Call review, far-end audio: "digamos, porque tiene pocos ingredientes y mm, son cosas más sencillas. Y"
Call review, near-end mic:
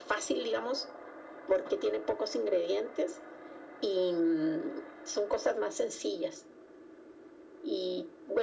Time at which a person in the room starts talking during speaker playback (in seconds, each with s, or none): none